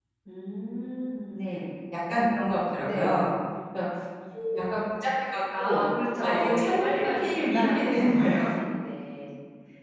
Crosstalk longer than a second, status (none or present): present